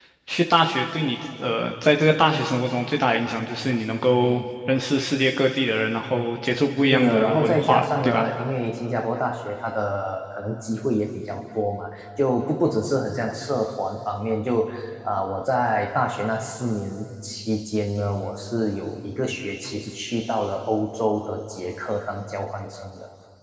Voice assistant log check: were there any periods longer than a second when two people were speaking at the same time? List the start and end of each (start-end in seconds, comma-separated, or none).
6.9-8.3